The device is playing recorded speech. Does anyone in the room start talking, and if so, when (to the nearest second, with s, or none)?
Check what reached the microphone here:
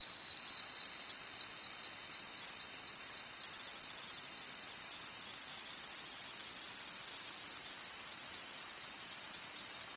none